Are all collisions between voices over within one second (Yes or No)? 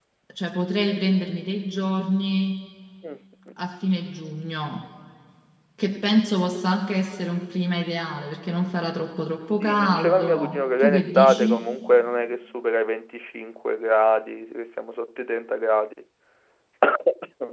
No